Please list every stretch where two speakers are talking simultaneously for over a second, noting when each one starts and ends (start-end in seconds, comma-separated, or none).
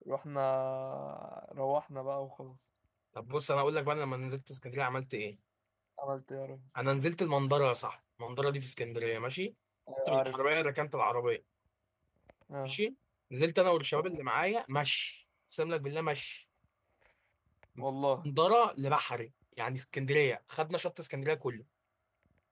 none